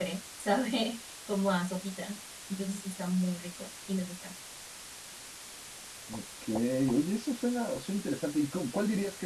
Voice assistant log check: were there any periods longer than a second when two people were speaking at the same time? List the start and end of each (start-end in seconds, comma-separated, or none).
none